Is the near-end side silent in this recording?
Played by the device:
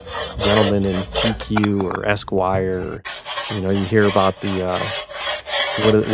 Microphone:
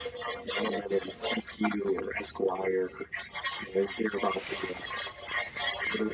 Yes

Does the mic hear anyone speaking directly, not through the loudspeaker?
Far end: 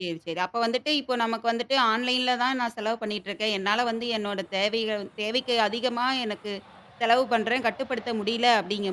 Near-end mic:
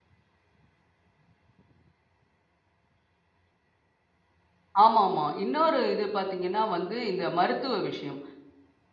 Yes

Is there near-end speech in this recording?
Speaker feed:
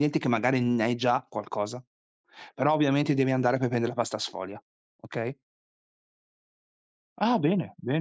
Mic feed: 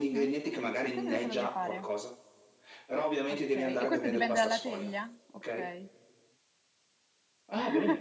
Yes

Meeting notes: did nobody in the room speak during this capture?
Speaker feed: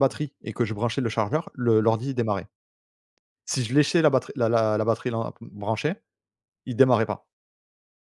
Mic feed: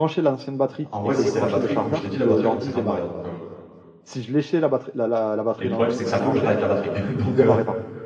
No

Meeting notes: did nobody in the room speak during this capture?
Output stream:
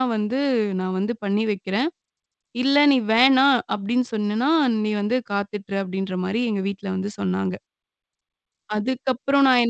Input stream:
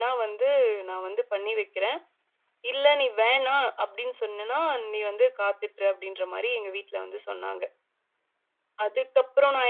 Yes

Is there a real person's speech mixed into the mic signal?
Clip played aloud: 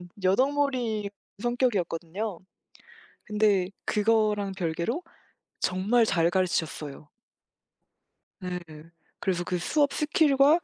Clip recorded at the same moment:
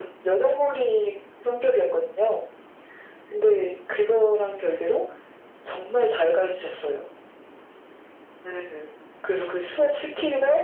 No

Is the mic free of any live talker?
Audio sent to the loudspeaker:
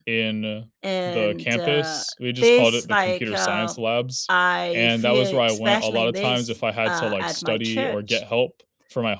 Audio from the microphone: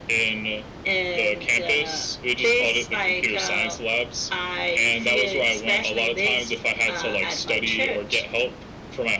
Yes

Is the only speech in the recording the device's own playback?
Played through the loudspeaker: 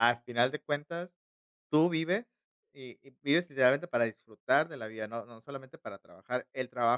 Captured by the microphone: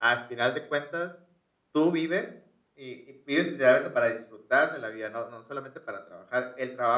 Yes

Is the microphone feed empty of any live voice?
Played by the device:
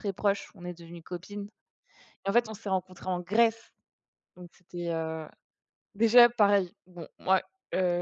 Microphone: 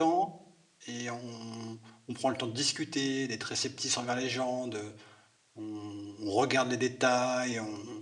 No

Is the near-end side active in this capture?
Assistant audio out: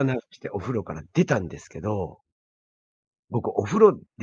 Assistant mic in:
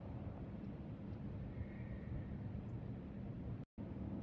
No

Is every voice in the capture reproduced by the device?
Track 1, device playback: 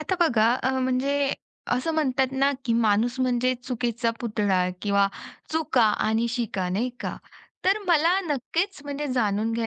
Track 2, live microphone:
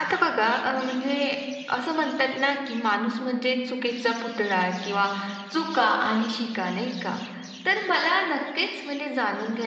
Yes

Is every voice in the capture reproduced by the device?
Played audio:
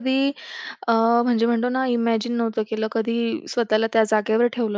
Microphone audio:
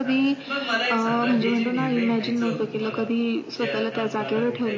No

